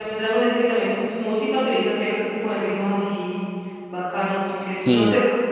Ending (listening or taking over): listening